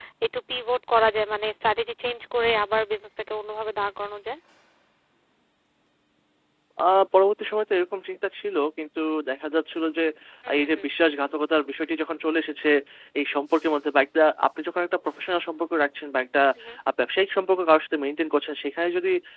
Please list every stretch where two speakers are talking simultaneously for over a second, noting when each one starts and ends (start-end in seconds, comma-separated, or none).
none